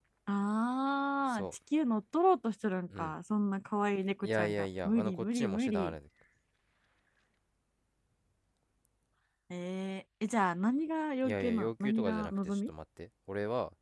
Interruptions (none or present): present